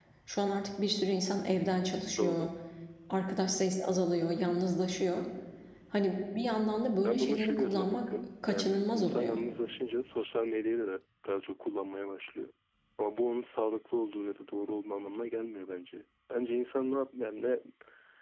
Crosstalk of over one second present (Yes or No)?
Yes